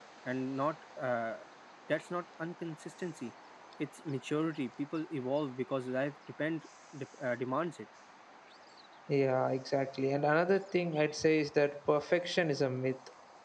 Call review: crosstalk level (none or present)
none